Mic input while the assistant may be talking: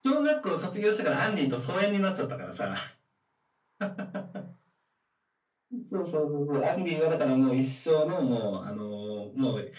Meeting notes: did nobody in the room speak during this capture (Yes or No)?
Yes